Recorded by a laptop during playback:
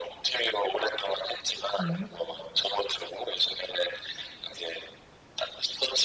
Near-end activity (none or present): present